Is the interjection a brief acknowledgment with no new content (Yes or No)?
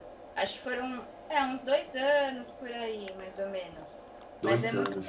Yes